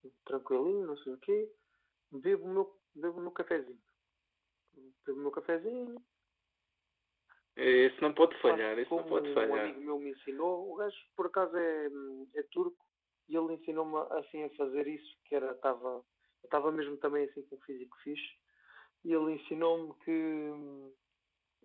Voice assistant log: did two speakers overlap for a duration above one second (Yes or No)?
Yes